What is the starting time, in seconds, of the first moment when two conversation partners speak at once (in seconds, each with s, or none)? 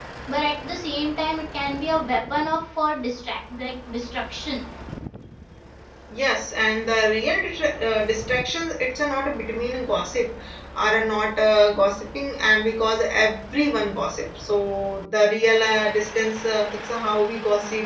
none